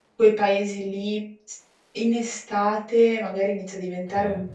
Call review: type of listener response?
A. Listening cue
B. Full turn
A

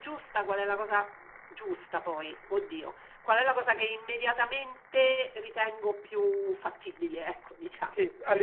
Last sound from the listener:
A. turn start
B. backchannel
A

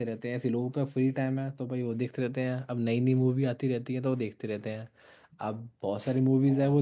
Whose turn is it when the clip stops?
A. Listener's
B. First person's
B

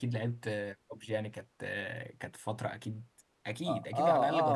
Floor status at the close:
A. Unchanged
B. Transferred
B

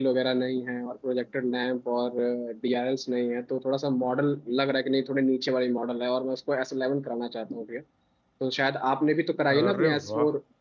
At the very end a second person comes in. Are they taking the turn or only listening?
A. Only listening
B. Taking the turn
A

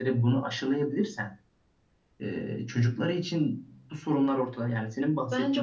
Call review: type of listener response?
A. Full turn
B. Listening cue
A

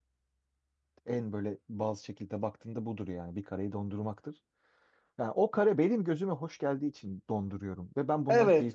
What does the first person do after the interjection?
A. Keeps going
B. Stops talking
B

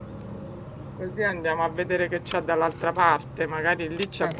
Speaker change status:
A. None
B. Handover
A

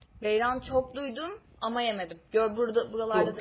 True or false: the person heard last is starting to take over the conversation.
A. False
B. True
B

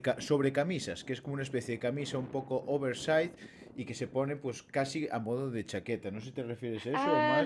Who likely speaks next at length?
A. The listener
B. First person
A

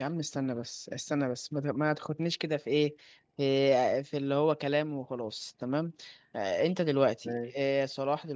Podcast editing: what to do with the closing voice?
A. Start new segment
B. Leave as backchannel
B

